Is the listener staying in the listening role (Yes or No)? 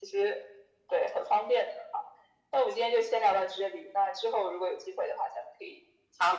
No